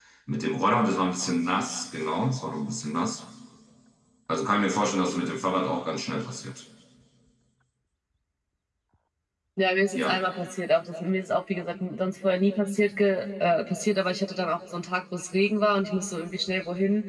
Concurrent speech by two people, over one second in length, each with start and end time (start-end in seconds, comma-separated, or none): none